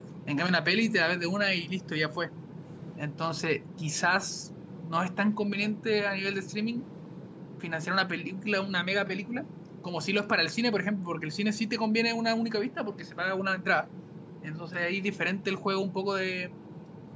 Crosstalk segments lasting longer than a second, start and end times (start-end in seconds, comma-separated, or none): none